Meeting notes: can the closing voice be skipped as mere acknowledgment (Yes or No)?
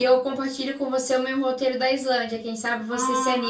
No